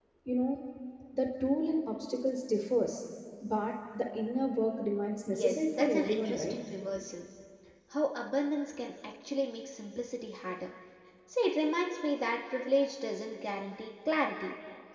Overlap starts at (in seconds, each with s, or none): 5.3 s